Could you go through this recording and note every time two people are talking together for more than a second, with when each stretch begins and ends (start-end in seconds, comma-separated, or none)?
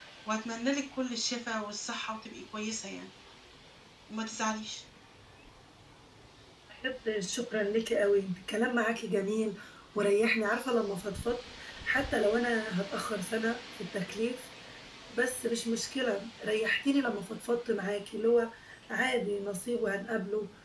none